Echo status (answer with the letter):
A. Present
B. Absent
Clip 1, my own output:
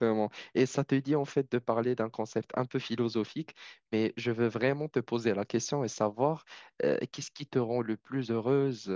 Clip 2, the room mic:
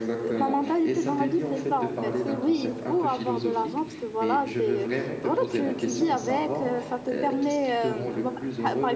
A